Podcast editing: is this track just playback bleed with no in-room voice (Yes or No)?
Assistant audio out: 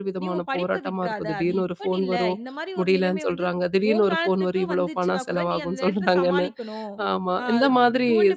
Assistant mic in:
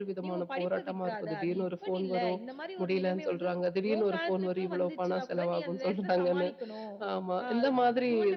Yes